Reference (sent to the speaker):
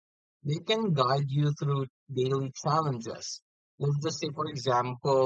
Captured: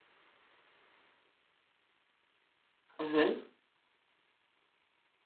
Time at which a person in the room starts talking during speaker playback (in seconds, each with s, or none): 3.0 s